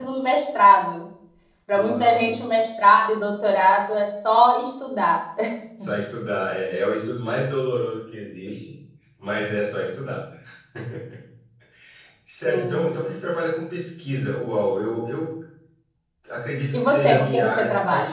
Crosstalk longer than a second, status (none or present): present